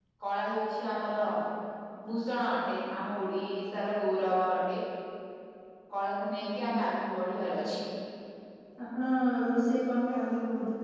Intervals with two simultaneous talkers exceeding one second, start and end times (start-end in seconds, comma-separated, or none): none